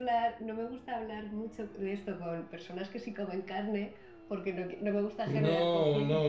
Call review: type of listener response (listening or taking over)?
taking over